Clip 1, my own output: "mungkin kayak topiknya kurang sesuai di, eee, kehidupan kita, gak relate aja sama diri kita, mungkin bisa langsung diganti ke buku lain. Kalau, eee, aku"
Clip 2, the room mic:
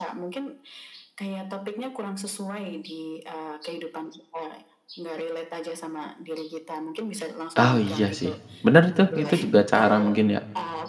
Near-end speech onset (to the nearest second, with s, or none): 8 s